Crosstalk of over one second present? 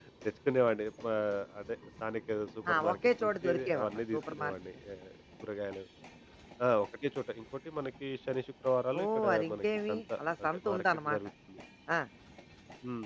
Yes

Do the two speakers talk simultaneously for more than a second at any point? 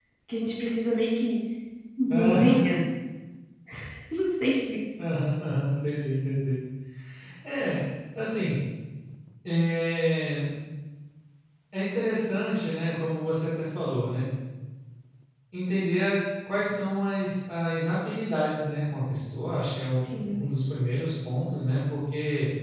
No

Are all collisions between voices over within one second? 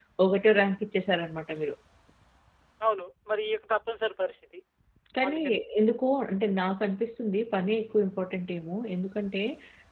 Yes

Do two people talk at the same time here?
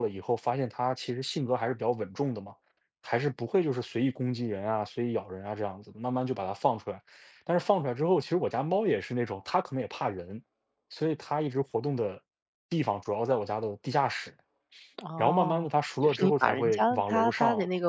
Yes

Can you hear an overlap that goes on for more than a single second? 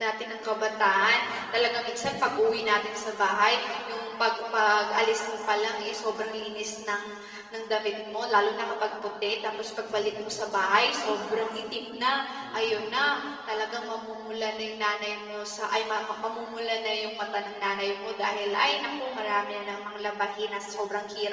No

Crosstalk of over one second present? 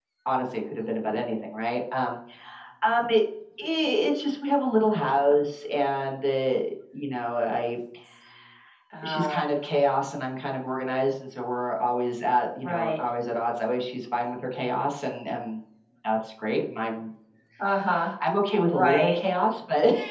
No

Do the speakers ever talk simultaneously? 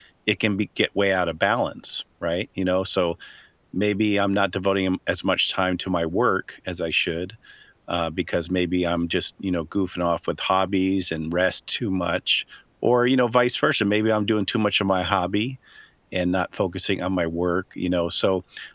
No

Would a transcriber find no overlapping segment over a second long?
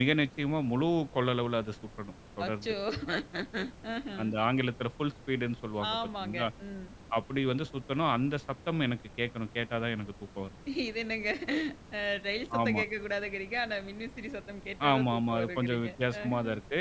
No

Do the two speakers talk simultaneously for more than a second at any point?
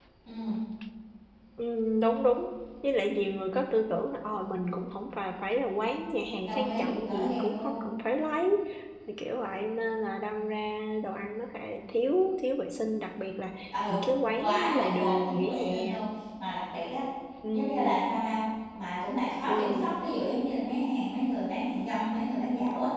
Yes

